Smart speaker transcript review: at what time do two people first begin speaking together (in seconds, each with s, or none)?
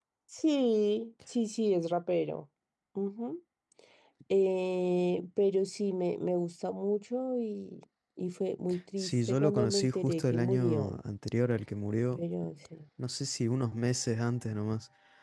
9.0 s